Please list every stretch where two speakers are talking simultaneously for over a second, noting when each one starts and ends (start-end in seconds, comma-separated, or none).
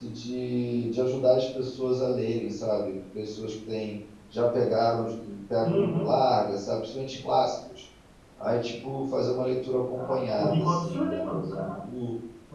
10.0-11.8